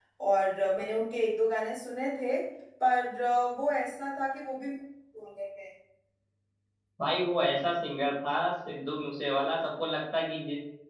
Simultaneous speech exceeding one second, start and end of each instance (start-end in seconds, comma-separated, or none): none